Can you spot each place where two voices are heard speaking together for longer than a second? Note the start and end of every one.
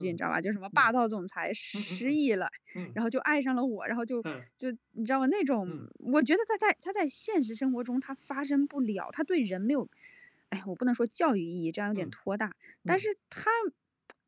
none

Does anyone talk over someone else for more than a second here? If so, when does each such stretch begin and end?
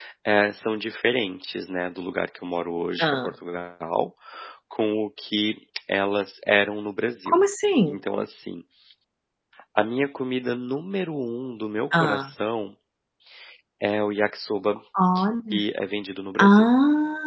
none

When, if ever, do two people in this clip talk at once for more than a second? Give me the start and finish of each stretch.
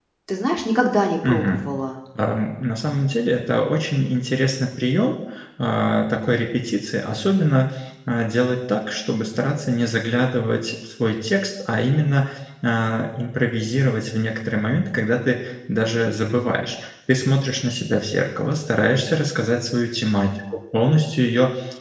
none

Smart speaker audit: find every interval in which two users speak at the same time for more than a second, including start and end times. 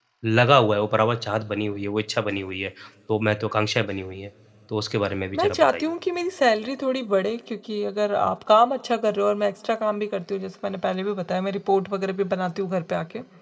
none

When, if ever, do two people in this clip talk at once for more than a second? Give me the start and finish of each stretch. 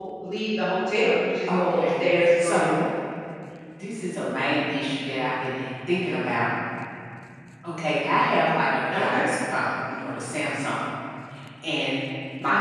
1.5-2.8

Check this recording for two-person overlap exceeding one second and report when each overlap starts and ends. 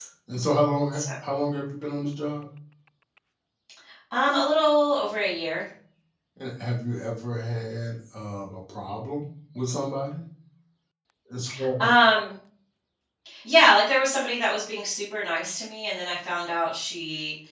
none

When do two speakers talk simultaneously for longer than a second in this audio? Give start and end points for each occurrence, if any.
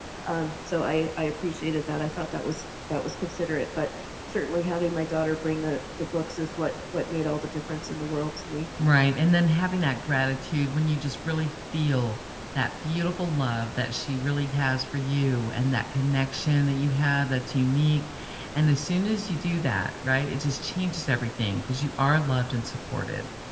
none

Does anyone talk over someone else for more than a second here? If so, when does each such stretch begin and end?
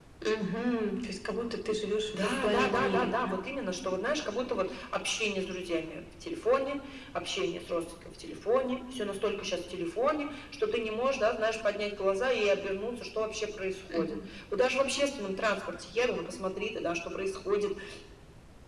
2.1-3.4

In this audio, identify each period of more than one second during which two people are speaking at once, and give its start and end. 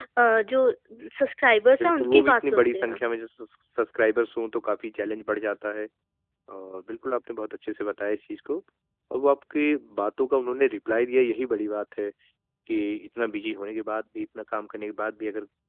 1.8-3.0

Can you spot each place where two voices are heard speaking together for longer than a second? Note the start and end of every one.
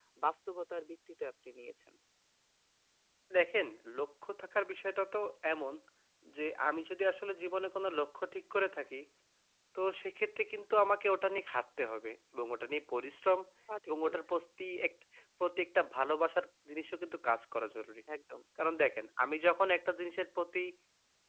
none

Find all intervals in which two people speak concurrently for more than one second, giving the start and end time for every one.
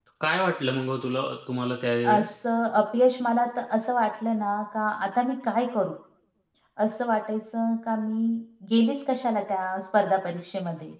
none

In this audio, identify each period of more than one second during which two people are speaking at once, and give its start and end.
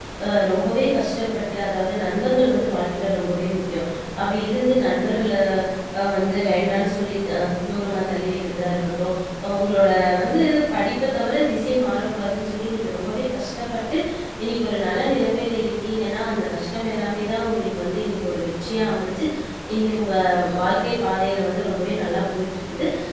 none

